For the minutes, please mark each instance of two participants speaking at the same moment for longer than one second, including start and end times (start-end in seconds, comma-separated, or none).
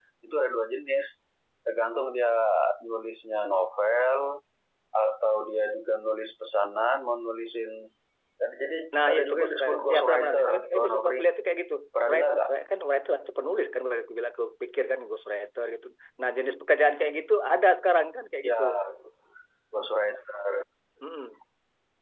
9.1-11.2